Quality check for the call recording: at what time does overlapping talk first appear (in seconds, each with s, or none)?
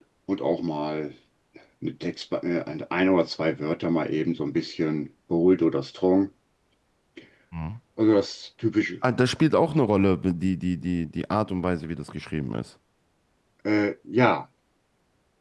none